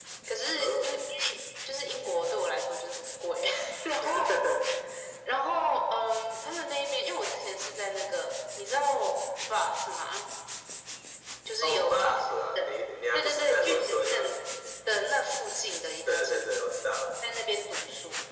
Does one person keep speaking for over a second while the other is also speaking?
Yes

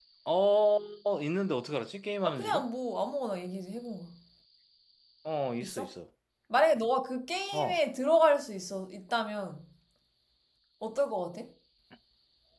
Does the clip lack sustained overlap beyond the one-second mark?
Yes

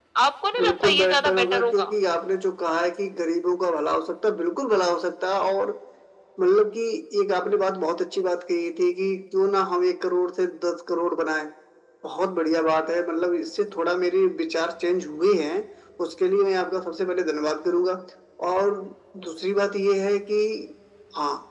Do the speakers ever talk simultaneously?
Yes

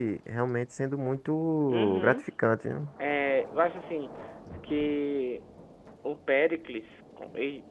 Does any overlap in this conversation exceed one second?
No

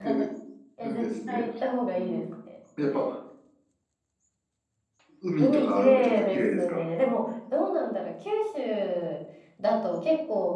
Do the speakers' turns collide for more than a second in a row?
Yes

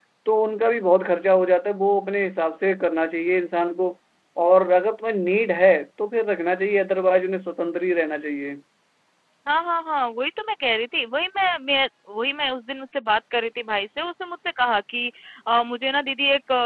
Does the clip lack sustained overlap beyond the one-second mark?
Yes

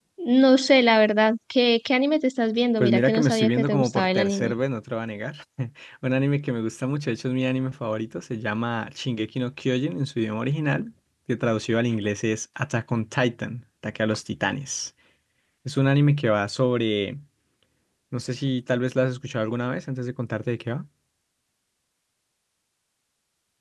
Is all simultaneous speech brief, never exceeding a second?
No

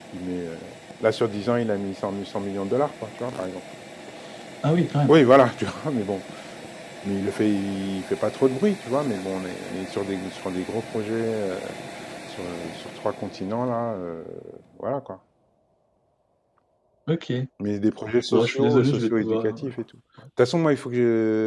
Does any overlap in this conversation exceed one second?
Yes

